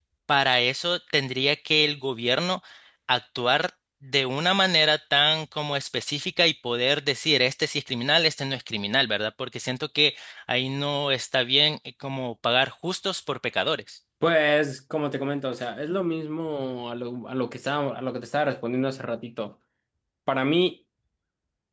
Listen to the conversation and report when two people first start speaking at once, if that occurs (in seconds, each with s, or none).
none